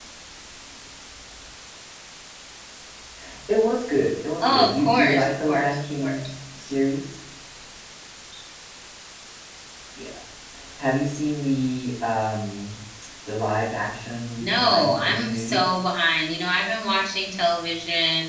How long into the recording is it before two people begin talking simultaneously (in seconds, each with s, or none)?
4.4 s